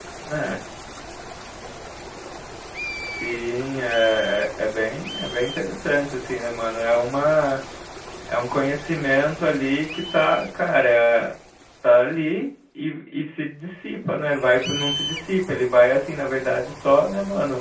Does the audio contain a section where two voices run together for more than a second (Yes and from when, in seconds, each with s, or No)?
No